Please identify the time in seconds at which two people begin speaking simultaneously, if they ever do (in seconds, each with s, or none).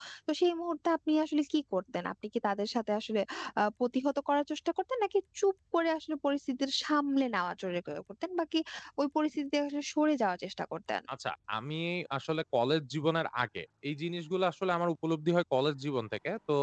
none